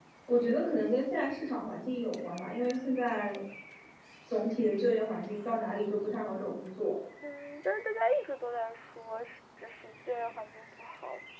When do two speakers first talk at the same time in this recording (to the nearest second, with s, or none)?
none